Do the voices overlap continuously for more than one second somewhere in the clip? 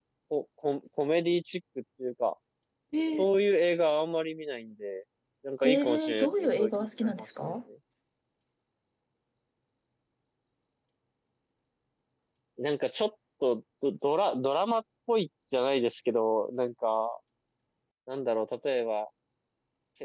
Yes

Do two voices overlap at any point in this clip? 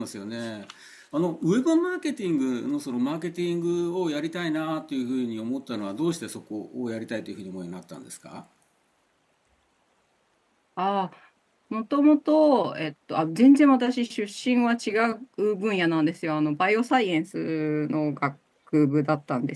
No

